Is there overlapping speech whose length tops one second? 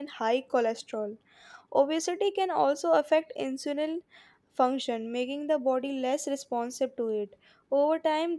No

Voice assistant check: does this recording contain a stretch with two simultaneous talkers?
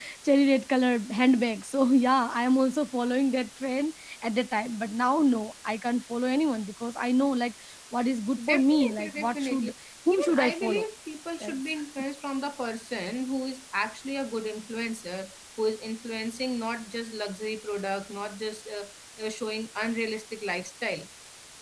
Yes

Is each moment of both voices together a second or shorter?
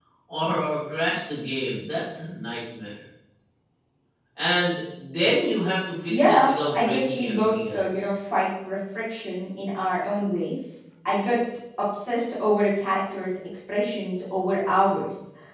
No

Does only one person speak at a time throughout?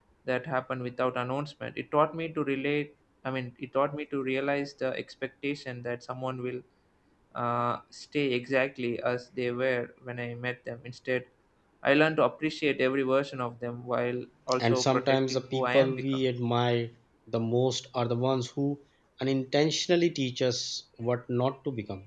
No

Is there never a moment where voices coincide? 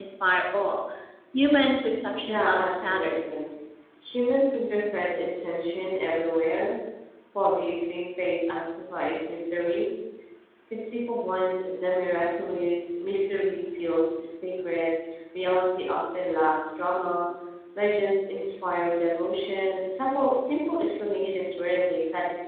No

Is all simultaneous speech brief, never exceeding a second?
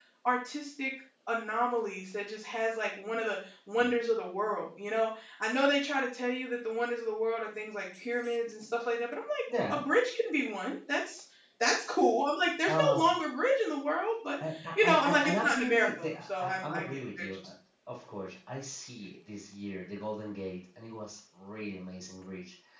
No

